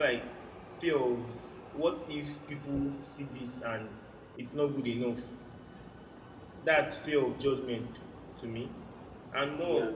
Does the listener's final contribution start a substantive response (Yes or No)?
No